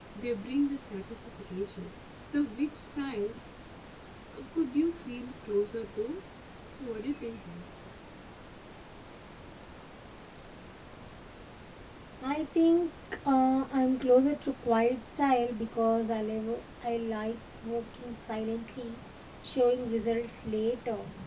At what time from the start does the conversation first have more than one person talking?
none

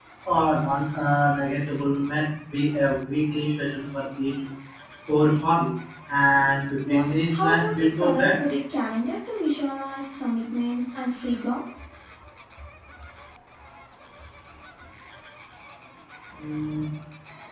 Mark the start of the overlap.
7 s

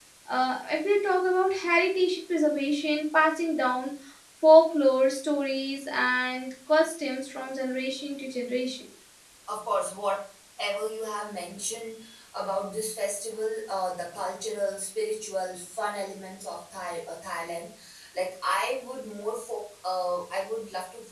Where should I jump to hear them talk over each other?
none

